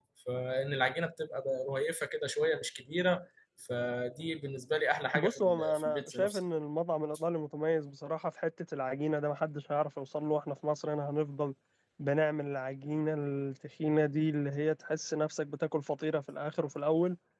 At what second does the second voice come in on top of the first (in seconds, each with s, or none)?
5.1 s